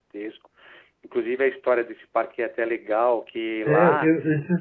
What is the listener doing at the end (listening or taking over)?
taking over